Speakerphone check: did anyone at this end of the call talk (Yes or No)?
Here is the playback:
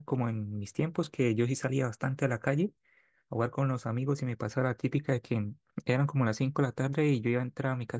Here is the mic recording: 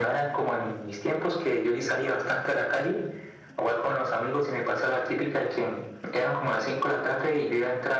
No